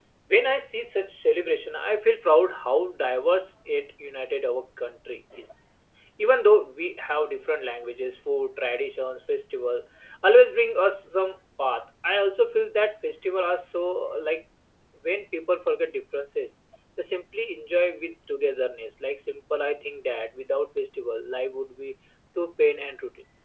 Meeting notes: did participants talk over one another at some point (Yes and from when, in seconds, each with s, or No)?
No